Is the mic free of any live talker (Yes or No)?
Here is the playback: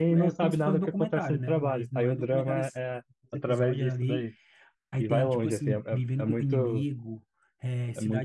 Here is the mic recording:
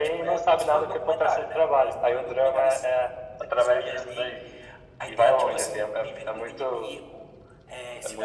Yes